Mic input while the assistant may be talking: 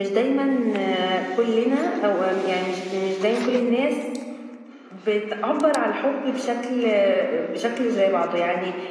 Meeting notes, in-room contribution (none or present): none